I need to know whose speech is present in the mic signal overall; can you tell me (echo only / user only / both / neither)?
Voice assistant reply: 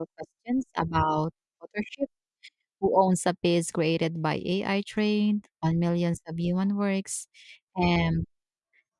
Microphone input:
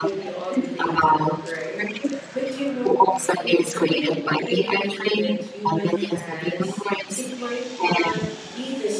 both